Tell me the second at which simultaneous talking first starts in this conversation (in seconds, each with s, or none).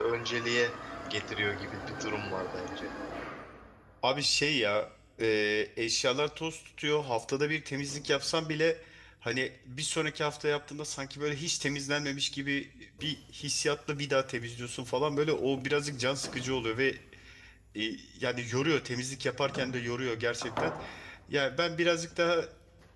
none